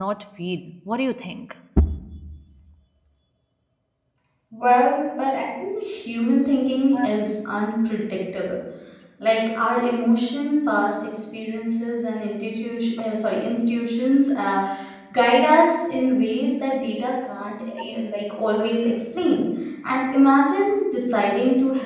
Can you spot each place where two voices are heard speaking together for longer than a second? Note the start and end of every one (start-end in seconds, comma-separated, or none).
none